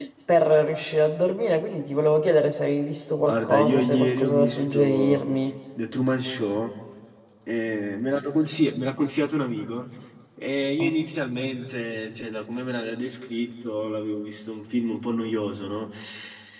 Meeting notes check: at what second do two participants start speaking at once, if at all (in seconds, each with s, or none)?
3.2 s